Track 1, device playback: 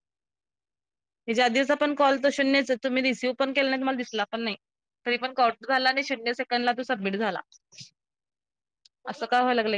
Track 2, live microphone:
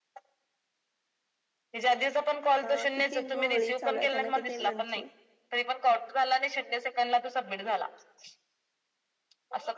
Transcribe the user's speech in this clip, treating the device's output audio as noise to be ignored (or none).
हा किती गोळी चालू आहे त्यांना किती एममची.